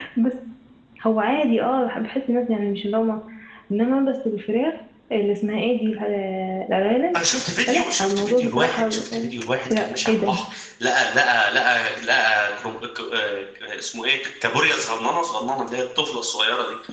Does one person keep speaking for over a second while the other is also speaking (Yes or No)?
Yes